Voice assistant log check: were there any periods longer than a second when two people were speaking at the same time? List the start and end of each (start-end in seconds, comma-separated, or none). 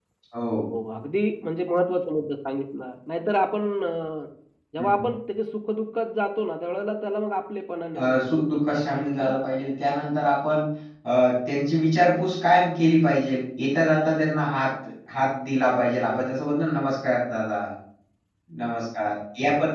8.0-9.3